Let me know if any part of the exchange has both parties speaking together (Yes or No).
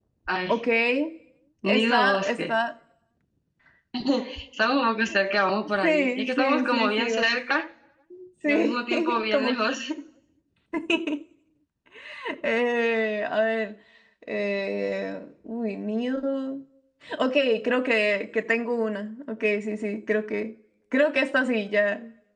Yes